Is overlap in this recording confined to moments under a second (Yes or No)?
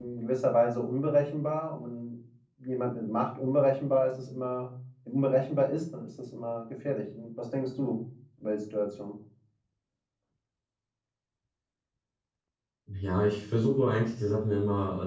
Yes